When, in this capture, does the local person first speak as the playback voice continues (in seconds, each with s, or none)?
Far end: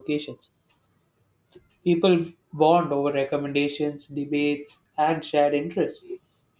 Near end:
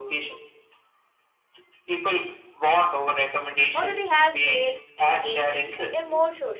3.7 s